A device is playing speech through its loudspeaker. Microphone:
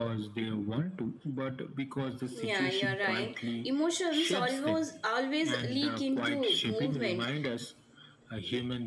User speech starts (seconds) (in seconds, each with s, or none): 2.3 s